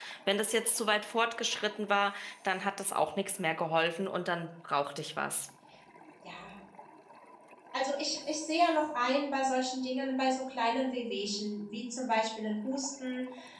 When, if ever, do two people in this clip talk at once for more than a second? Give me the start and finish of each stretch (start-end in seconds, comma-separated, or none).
none